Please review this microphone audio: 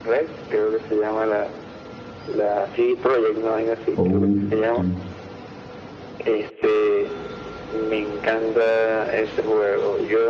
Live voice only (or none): Oh, ok.